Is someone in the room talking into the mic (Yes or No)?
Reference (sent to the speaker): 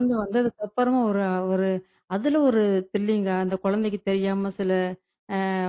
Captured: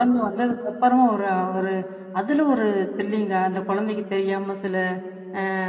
No